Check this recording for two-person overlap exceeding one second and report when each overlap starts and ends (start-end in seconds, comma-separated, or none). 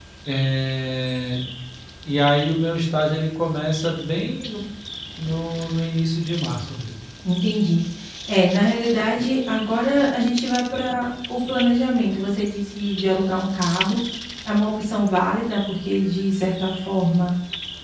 none